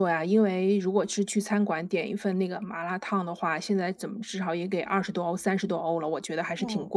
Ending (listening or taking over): taking over